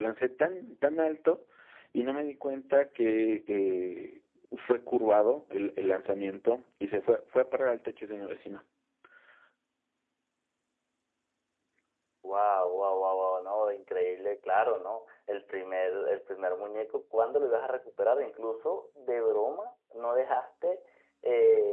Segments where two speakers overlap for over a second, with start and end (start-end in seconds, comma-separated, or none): none